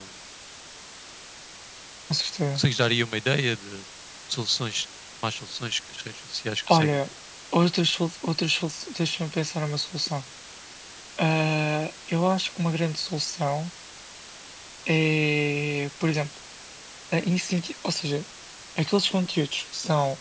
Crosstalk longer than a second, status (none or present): none